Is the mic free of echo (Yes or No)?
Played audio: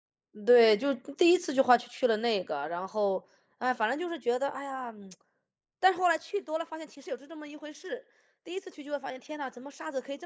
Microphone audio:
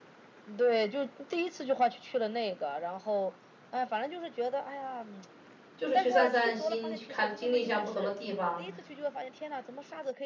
No